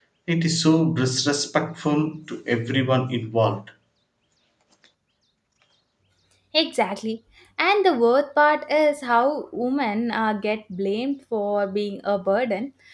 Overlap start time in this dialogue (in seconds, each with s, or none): none